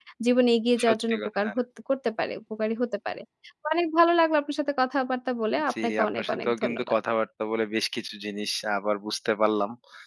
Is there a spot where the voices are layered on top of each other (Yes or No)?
Yes